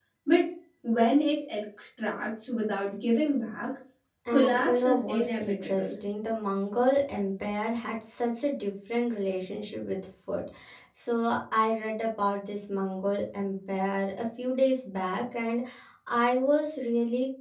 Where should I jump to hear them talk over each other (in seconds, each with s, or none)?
4.3 s